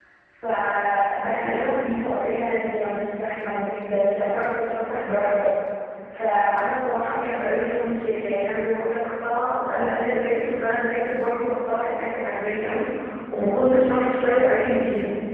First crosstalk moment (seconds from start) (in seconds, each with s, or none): none